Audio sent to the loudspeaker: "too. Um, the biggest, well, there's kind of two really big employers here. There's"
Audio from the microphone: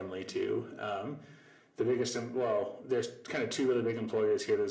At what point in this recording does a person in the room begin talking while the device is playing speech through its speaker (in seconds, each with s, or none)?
none